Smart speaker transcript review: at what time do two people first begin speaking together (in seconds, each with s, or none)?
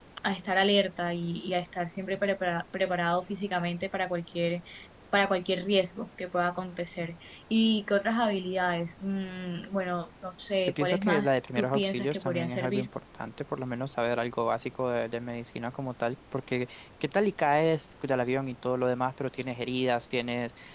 10.6 s